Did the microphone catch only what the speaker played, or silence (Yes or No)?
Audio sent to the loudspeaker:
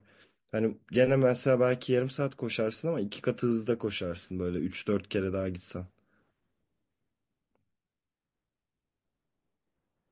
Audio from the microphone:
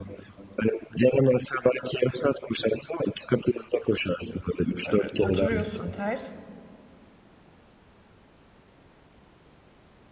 No